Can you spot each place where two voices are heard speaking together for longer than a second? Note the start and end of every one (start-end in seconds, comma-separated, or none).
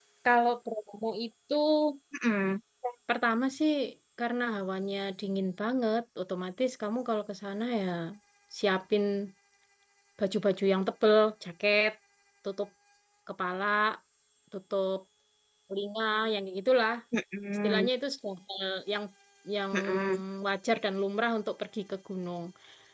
none